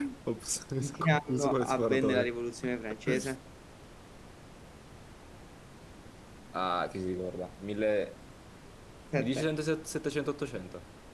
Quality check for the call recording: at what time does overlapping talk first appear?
1 s

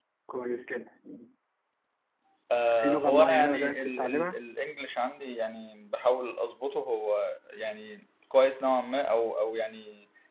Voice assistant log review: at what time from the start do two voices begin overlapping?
3 s

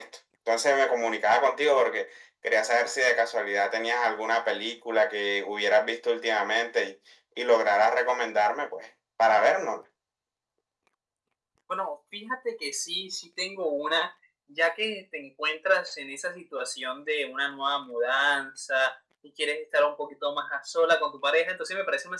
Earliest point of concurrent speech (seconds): none

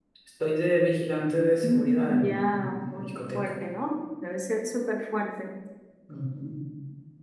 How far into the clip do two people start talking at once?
2 s

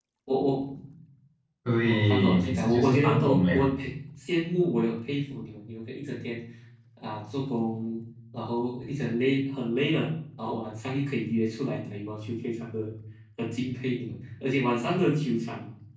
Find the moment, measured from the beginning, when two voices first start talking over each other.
2 s

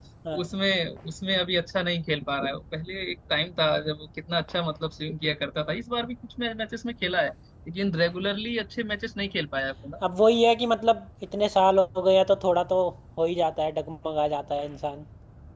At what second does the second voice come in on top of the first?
none

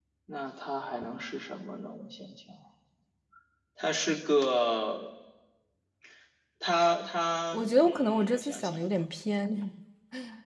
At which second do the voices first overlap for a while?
8 s

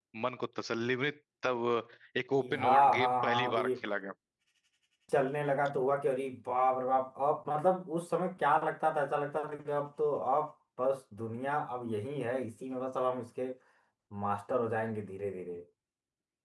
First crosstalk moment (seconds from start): 2 s

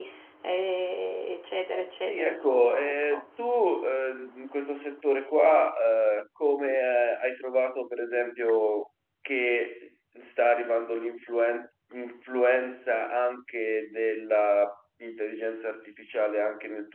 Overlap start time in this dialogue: 2 s

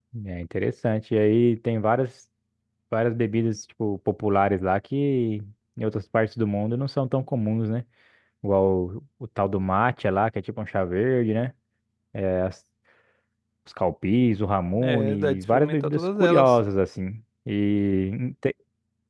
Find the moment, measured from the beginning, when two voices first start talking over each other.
15 s

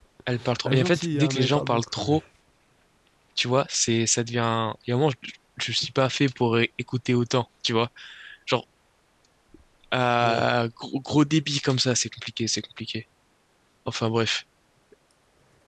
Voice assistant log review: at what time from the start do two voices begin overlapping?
1 s

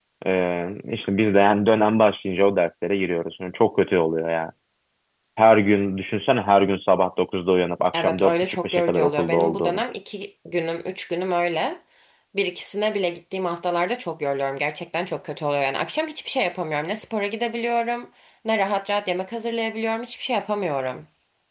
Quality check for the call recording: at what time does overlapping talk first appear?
8 s

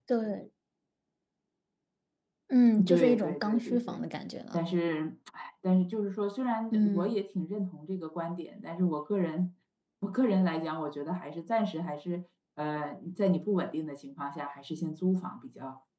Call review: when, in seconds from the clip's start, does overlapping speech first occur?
3 s

